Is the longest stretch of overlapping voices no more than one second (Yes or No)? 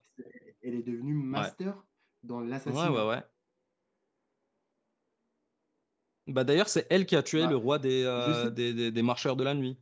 Yes